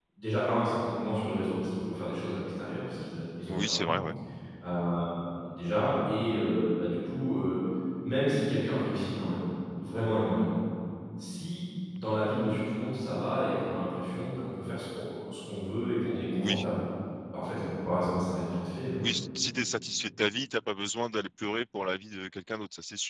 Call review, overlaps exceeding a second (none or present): none